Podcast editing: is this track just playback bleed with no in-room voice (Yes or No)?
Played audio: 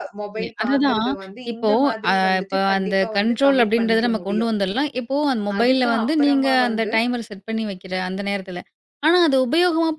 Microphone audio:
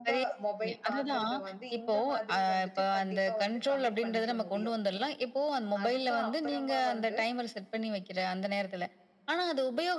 Yes